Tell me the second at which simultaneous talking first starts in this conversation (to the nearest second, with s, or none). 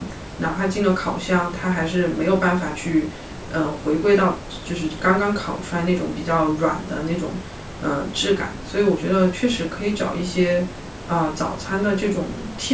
none